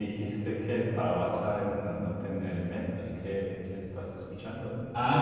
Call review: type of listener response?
taking over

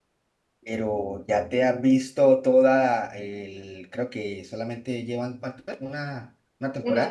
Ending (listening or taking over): taking over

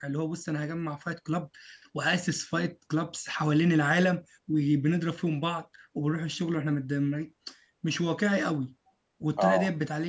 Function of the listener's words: listening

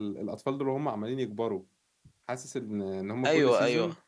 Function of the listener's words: listening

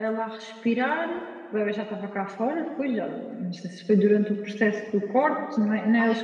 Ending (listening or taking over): listening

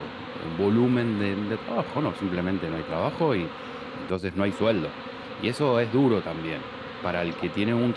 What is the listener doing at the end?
listening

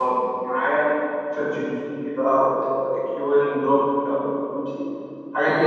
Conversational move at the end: taking over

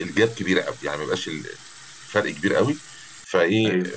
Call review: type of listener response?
listening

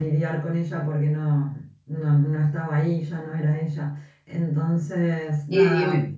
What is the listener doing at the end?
taking over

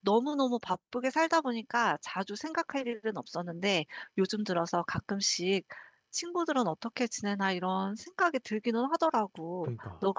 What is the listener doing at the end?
listening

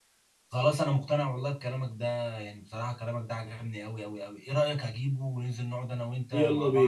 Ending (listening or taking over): taking over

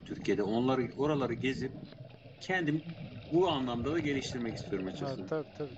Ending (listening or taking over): taking over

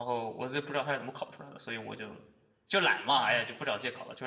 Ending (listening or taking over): taking over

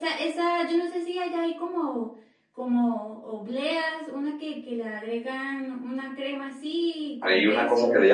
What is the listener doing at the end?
taking over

